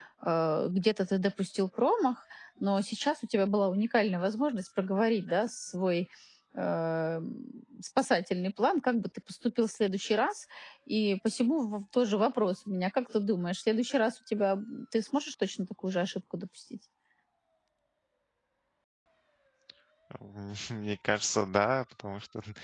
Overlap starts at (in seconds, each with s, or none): none